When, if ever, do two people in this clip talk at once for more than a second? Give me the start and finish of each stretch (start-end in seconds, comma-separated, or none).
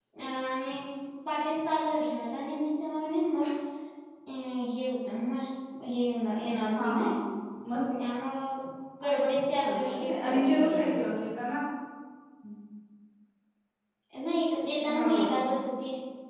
9.7-11.2